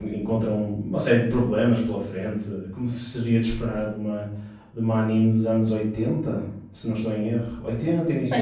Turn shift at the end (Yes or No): Yes